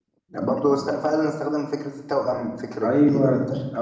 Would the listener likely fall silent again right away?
No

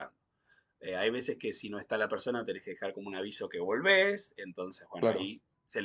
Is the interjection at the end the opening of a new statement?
No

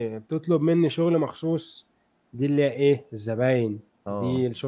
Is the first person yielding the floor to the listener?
No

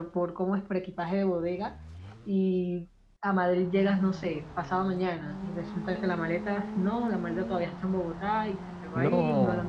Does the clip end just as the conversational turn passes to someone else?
No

